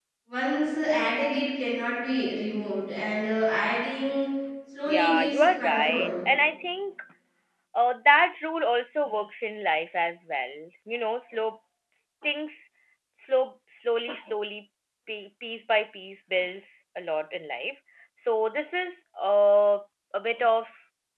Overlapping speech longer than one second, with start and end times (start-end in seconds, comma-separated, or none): 4.8-6.1